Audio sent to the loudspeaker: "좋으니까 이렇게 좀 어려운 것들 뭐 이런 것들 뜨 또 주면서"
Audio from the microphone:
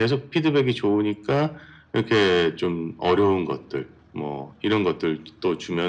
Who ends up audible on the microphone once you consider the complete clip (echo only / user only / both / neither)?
echo only